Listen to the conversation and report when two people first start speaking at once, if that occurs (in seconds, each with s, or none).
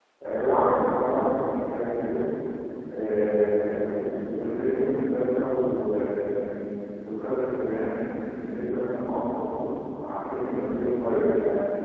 none